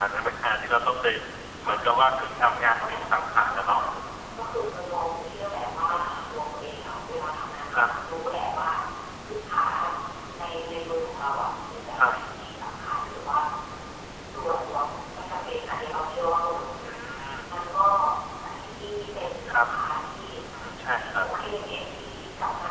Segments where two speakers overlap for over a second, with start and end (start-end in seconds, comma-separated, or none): 2.6-3.8